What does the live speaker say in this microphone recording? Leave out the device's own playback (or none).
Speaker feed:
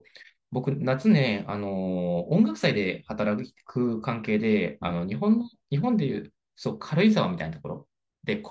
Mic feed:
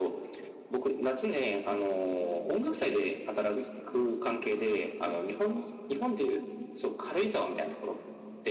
none